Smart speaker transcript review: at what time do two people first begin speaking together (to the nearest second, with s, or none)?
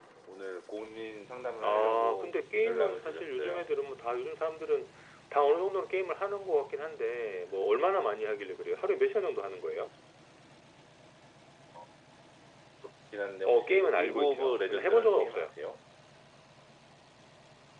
2 s